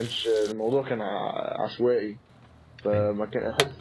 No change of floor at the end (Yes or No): Yes